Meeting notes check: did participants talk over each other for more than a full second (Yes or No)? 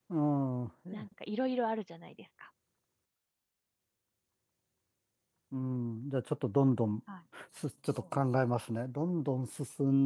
No